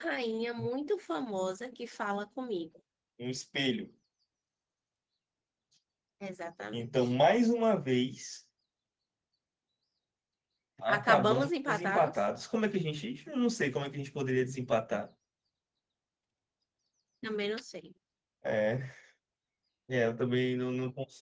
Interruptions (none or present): present